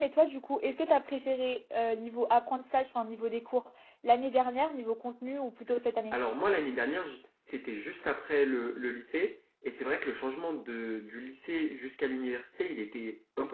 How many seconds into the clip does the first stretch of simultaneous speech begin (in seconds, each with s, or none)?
none